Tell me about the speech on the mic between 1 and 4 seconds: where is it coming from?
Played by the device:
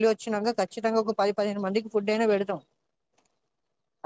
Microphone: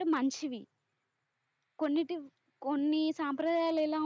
user only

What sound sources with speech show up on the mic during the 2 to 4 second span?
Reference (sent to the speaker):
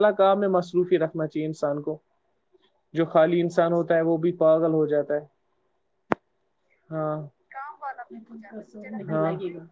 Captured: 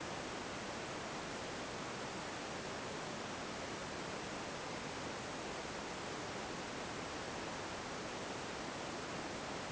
neither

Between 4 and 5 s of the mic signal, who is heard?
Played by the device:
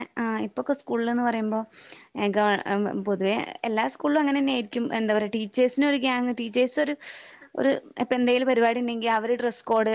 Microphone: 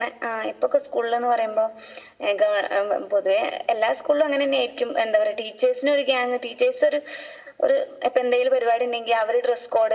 echo only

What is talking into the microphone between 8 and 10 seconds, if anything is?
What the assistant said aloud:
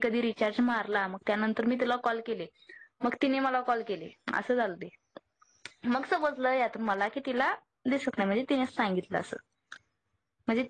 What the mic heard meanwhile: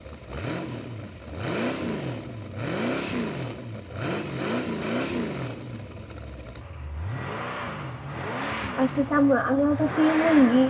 user only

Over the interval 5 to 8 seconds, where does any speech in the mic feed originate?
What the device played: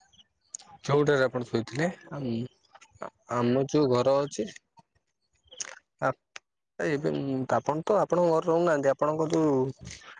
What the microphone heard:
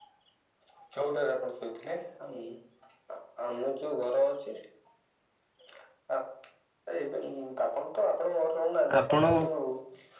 echo only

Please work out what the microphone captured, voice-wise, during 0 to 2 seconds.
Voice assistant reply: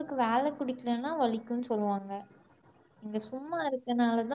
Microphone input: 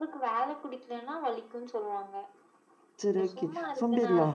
echo only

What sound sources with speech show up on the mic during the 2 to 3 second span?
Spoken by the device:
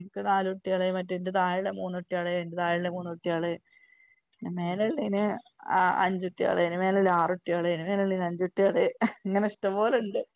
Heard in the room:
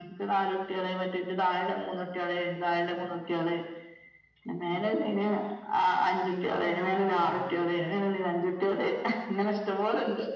echo only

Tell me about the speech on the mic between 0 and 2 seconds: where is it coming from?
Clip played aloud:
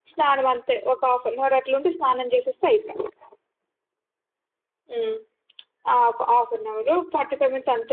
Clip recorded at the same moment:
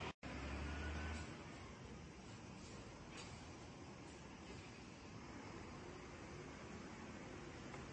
neither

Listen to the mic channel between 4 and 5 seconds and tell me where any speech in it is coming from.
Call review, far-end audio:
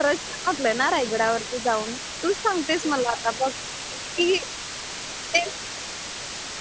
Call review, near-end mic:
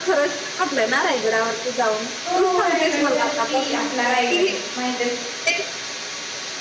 both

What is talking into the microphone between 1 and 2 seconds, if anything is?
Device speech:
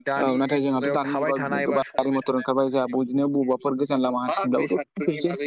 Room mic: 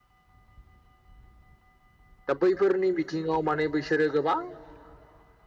neither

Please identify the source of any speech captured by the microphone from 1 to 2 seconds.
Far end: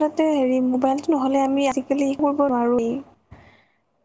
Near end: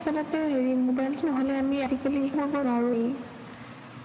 echo only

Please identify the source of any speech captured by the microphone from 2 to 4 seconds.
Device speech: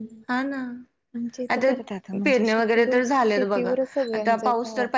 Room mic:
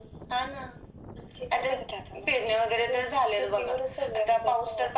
echo only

